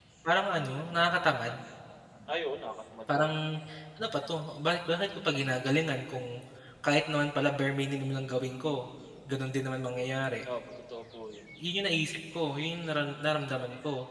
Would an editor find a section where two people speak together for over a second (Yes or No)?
No